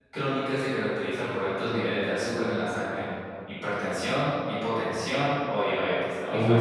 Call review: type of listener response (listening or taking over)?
taking over